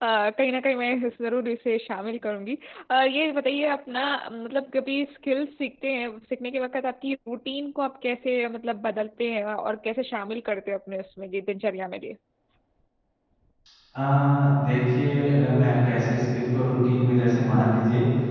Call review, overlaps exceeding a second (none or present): none